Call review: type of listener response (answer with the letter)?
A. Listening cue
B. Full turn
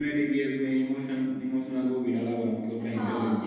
B